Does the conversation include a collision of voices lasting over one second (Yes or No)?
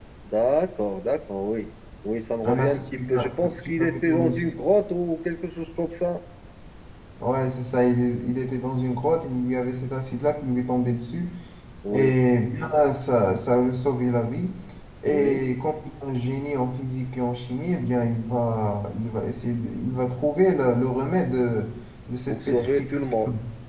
Yes